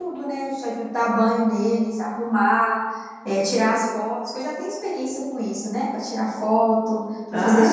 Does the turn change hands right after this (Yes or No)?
Yes